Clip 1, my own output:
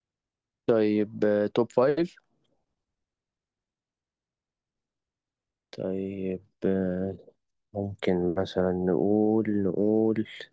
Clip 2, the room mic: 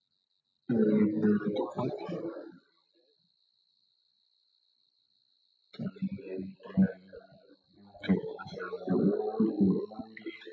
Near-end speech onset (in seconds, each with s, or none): none